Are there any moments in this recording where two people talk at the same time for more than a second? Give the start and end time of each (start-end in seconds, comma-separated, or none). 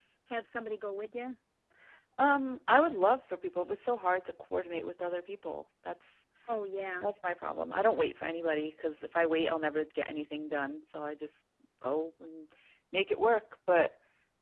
none